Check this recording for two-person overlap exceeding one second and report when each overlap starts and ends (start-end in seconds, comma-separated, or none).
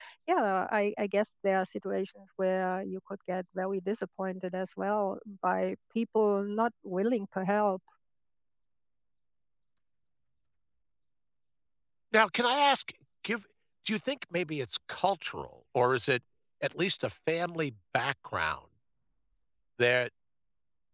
none